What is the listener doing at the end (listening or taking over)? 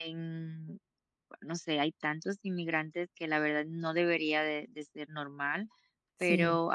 listening